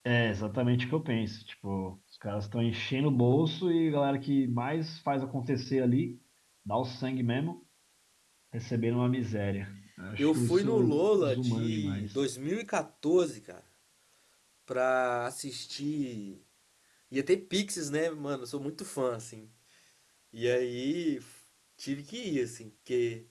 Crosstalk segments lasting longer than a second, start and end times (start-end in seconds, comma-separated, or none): 10.2-12.1